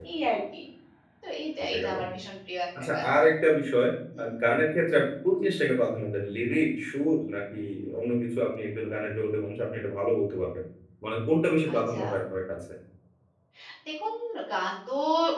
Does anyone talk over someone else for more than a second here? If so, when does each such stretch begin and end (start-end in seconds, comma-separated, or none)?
none